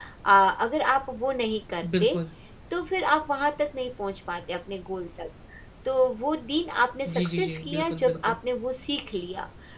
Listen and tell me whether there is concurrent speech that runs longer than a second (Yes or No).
Yes